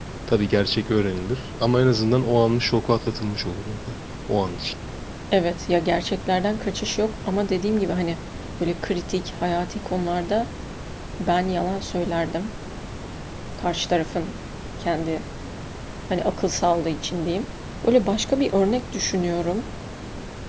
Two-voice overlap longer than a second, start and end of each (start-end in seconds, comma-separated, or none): none